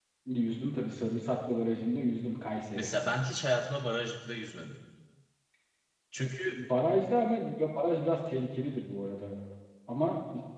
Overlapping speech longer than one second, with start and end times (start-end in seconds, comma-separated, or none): none